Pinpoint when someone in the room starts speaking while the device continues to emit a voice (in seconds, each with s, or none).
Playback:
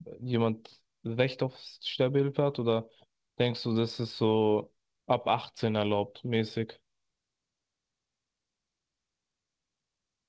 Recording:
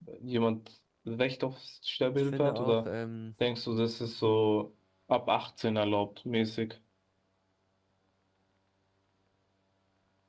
2.1 s